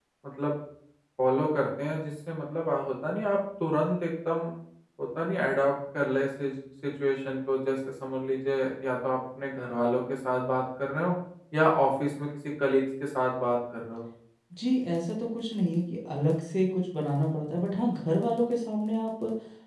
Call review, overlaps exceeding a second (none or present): none